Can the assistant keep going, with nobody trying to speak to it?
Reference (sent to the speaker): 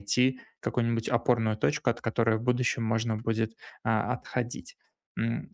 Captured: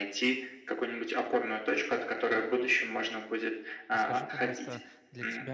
No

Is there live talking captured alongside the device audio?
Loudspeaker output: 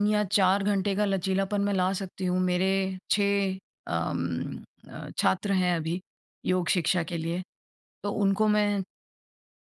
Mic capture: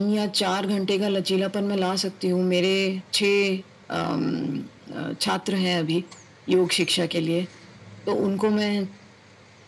No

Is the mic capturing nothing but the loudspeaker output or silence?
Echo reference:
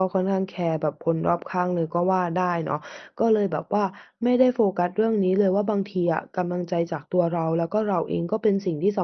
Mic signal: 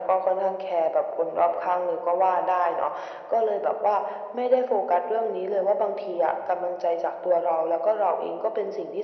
Yes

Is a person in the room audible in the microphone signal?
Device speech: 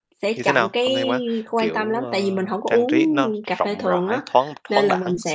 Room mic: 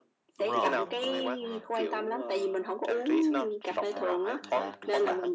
Yes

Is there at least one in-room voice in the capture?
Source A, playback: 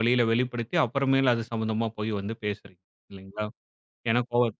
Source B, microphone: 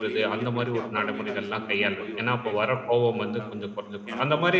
Yes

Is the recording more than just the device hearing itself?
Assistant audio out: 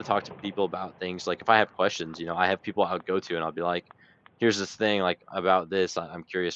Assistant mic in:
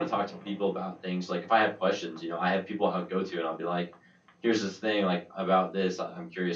No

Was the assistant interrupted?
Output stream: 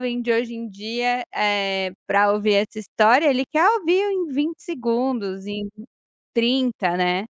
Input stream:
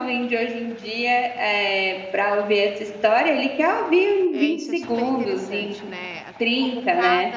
Yes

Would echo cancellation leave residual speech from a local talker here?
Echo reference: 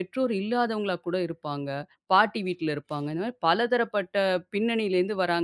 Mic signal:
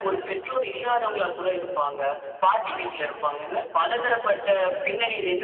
No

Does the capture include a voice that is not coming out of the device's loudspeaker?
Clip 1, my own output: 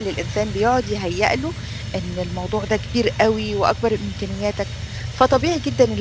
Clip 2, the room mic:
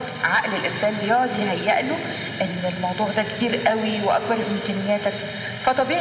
No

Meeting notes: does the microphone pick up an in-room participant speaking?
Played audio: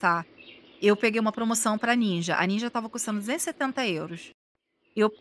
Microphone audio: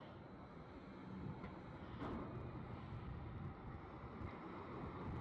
No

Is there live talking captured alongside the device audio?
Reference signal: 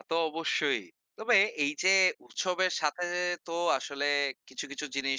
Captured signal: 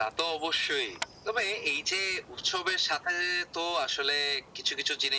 No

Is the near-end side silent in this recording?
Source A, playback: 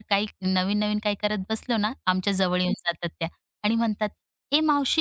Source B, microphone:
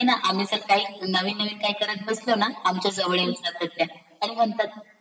Yes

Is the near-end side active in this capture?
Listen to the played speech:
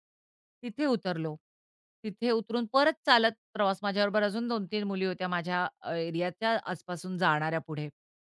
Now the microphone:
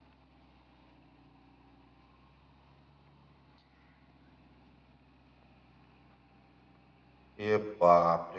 Yes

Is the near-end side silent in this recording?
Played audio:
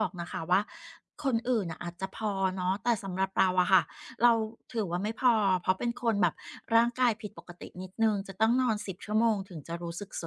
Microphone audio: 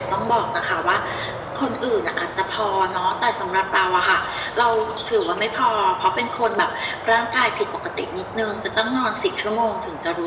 Yes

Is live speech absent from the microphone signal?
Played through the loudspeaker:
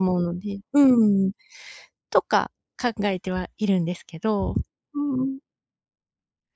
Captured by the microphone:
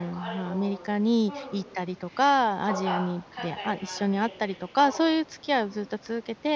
No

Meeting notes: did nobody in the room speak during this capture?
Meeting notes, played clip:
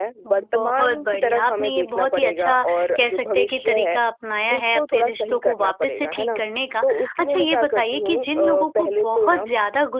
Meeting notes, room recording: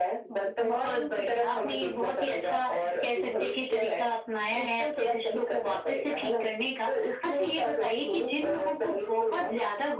Yes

